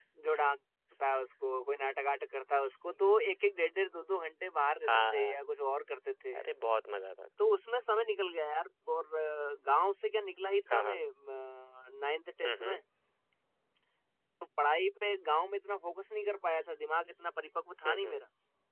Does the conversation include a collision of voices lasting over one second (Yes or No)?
No